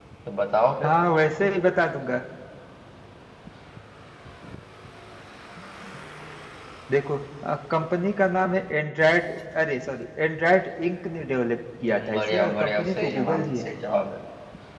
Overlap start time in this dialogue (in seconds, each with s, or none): 11.9 s